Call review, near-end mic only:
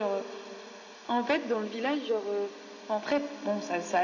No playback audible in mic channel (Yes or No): No